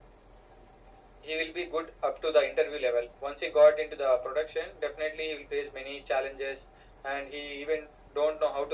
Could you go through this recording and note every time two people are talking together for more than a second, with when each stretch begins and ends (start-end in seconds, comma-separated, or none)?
none